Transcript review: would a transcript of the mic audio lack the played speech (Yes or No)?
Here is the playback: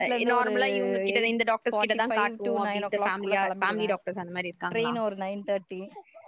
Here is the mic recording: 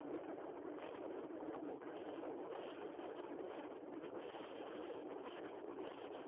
Yes